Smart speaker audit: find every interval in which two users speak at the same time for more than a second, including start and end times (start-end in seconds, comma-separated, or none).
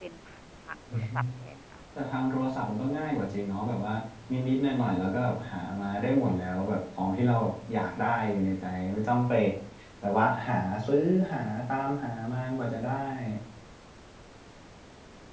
none